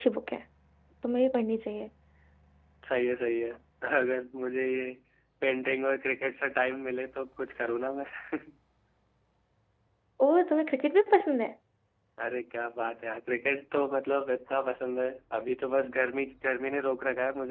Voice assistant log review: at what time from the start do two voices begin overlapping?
none

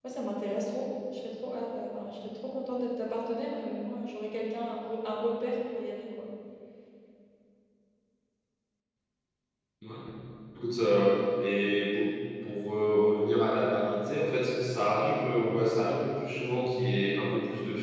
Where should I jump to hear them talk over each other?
none

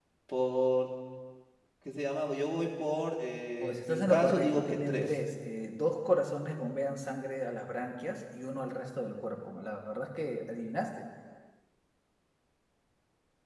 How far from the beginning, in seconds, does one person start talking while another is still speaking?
4 s

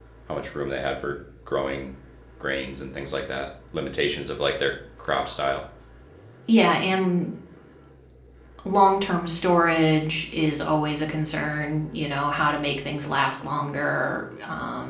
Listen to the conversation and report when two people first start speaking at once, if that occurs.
none

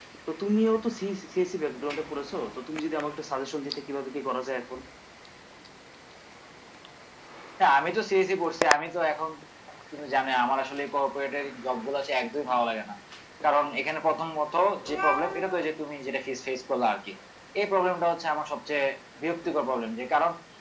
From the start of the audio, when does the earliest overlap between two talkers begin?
none

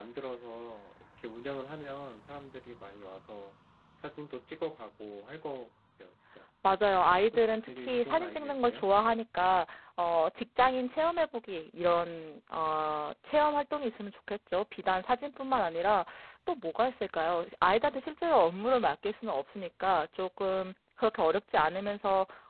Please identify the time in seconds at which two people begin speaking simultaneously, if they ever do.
7 s

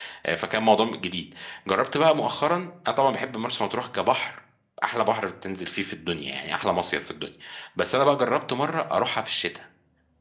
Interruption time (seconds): none

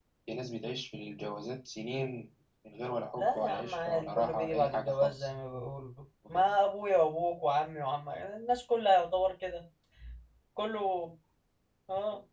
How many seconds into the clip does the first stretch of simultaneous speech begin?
3 s

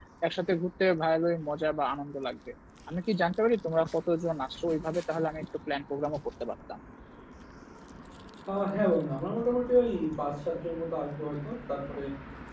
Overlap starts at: none

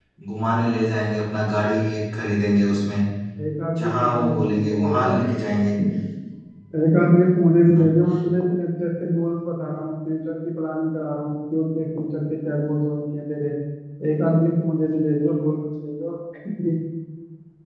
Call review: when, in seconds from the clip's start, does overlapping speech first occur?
4 s

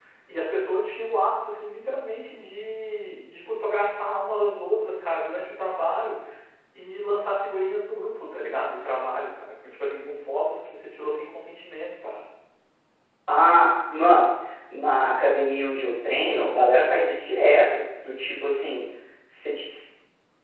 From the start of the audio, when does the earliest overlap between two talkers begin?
none

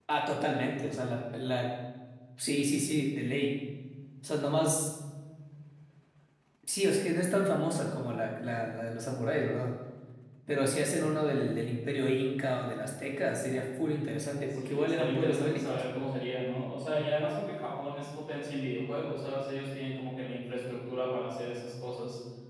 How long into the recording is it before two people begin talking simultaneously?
15 s

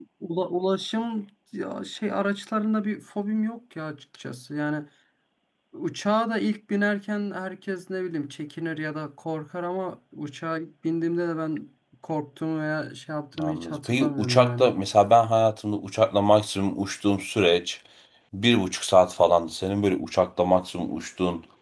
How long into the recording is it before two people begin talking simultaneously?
13 s

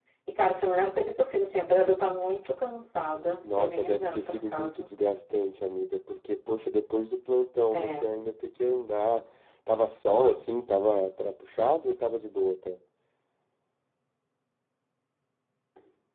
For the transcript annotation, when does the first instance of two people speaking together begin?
3 s

